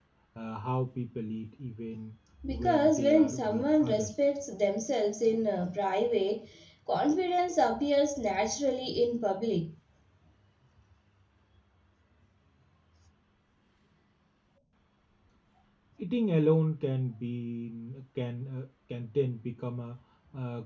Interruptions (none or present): present